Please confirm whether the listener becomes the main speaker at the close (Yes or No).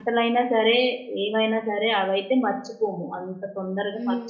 Yes